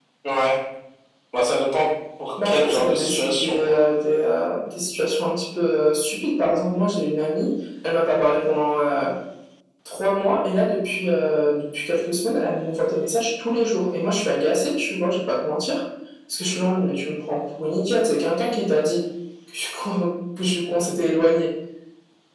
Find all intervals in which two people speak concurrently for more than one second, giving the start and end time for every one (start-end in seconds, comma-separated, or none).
2.5-3.8